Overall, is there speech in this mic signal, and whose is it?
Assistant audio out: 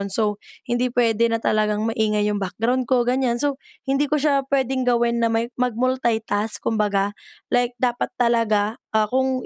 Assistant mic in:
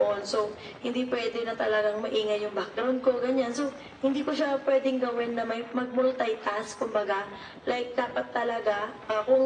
echo only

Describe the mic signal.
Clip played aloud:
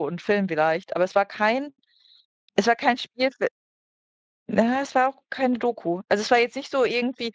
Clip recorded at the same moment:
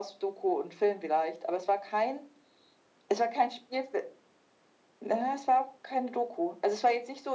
echo only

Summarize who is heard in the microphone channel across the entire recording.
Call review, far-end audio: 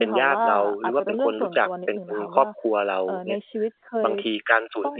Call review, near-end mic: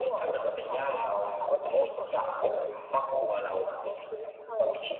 echo only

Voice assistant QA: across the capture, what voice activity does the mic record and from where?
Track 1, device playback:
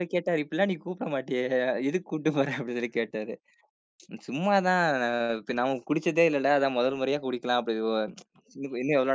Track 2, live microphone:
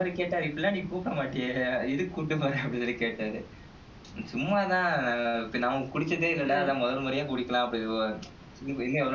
both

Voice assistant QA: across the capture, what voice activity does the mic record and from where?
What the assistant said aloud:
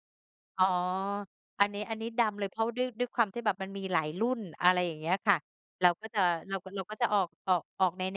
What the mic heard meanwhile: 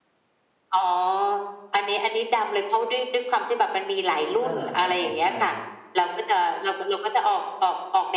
both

